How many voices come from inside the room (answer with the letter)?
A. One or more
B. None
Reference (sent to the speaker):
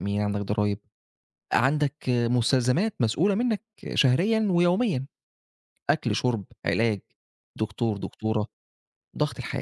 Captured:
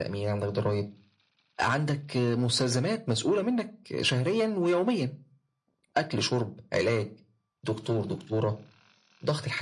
B